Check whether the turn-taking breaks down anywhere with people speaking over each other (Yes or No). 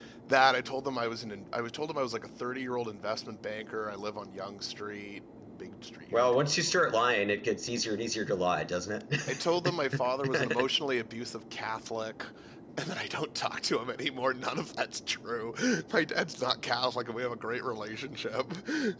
Yes